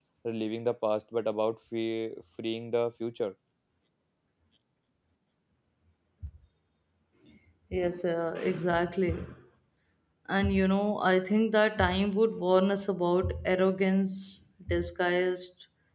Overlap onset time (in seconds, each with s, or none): none